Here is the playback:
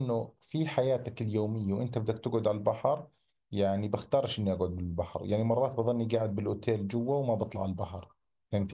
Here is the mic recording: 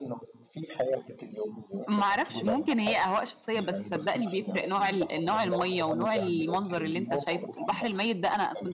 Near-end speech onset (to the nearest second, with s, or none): 2 s